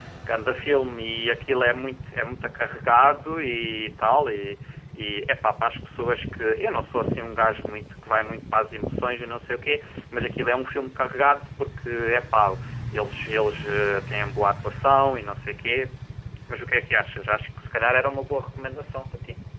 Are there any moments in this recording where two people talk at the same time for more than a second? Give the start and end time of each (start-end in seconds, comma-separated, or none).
none